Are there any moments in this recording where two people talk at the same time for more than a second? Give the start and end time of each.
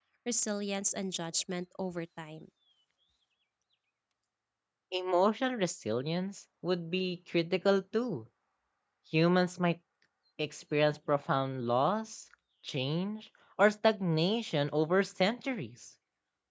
none

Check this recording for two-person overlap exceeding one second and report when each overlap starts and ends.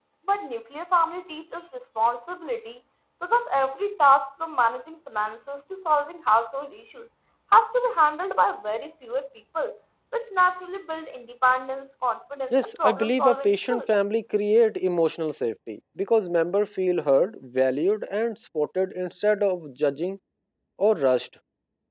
12.5-13.8

